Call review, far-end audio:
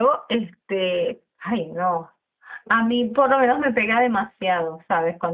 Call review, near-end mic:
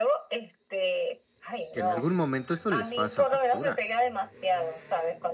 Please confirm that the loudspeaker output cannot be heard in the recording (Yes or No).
No